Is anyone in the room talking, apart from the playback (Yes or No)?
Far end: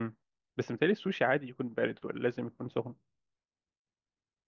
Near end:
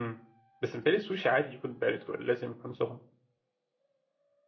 No